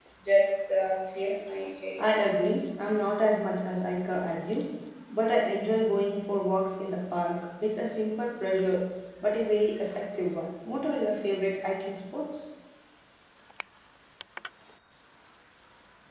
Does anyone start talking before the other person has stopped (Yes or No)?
No